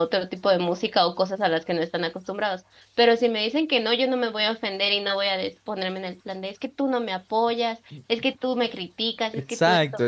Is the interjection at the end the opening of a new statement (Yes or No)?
Yes